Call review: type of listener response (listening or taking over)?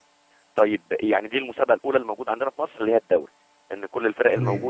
listening